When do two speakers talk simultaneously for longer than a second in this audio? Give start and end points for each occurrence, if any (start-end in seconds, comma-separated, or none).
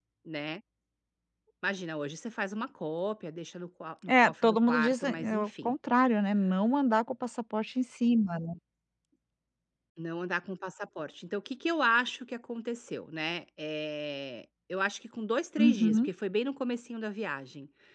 4.1-5.7